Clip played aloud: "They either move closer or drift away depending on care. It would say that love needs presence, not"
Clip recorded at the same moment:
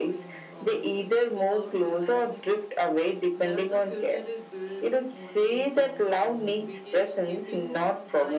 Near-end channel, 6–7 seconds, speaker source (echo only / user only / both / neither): both